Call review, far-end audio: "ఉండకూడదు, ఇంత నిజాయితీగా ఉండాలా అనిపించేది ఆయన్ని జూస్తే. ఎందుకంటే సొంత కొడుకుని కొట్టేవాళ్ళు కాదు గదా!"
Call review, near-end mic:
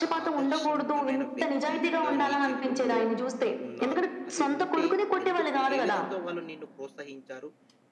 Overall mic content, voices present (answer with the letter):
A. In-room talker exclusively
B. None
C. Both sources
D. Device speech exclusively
C